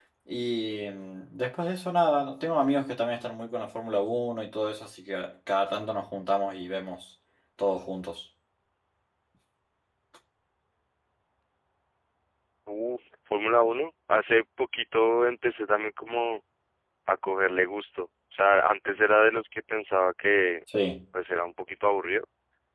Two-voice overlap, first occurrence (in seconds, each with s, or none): none